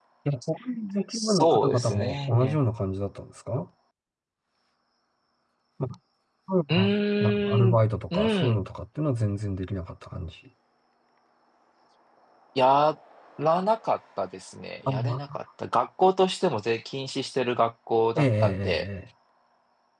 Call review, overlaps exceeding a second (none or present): present